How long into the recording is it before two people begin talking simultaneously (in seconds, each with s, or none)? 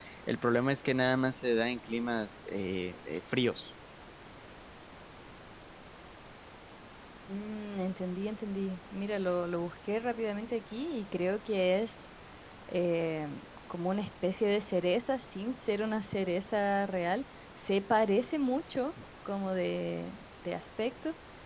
none